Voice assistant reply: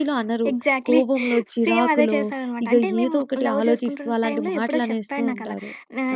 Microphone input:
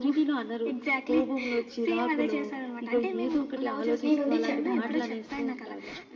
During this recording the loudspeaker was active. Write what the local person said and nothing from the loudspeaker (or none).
నేనుండి చెప్పా అనమాట.